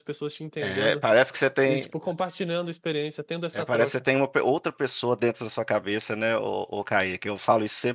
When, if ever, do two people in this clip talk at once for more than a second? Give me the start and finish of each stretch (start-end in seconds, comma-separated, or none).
none